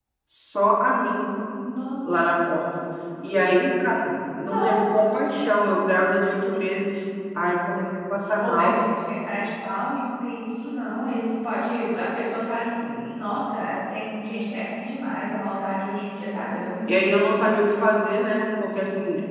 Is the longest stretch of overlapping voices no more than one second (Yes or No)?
Yes